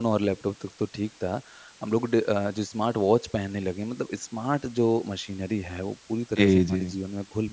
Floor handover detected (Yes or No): No